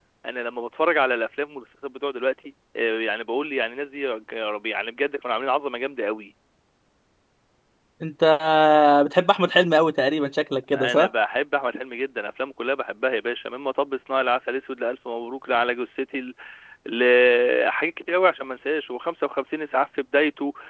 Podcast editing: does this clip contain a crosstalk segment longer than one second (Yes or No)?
No